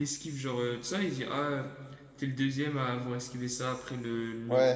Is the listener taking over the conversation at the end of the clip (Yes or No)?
Yes